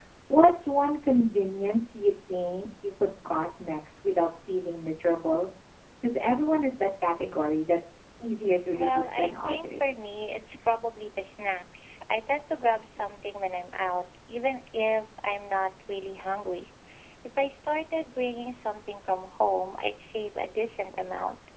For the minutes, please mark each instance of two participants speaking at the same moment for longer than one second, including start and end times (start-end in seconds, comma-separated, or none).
8.7-10.0